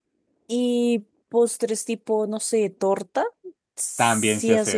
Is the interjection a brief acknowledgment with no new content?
No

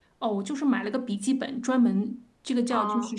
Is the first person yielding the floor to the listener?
No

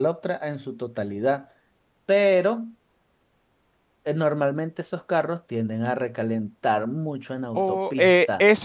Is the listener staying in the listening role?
No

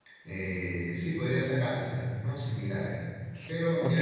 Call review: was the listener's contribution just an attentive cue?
No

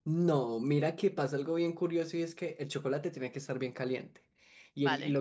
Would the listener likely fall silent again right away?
Yes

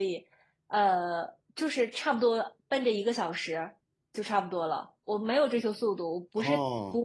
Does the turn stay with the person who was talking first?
Yes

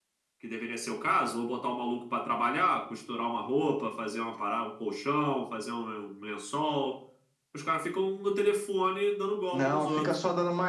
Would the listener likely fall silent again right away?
No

